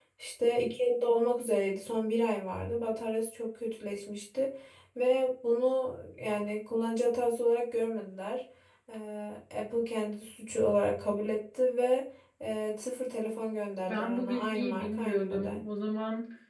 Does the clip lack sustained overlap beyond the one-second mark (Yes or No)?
No